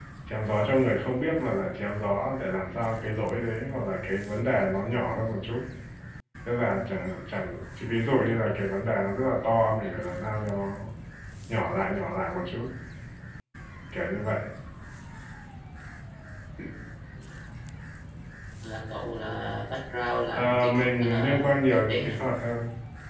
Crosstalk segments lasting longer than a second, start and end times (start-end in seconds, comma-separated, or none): 20.3-22.1